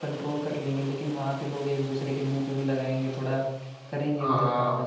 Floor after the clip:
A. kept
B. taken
B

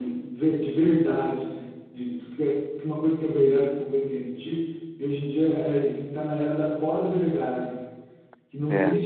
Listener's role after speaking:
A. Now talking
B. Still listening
B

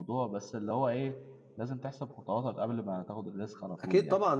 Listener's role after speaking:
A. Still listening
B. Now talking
B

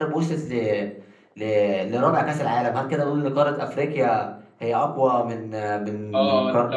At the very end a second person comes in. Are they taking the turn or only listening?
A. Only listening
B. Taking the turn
B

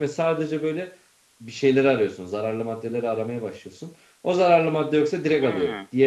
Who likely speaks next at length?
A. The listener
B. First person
A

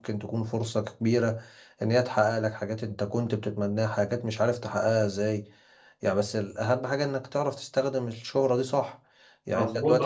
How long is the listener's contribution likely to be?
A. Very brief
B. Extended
B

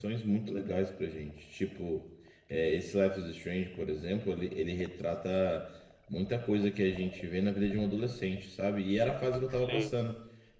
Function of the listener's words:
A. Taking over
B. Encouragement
B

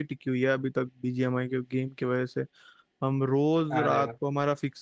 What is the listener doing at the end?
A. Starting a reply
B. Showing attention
B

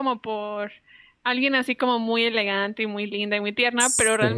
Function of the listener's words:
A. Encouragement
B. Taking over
A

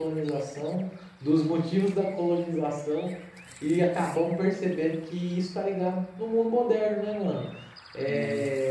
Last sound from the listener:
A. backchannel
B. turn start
A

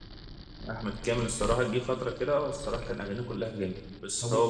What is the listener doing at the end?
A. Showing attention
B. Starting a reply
A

